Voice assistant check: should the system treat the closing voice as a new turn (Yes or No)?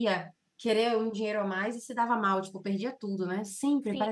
Yes